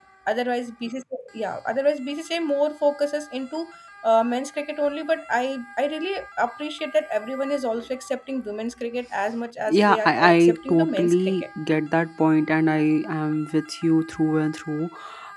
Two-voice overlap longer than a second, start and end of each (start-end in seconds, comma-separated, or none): 9.7-11.4